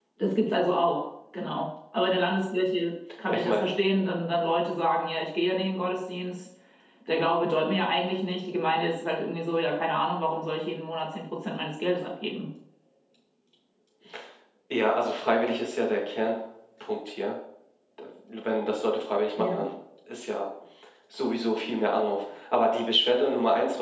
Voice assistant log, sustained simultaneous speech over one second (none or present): none